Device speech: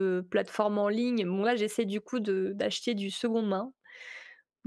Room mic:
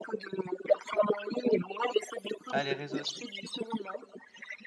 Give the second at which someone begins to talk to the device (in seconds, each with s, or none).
2.5 s